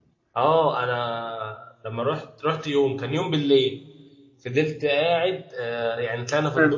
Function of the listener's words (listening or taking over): listening